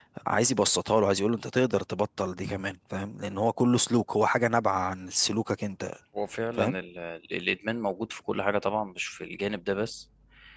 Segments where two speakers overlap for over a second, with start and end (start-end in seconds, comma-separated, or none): none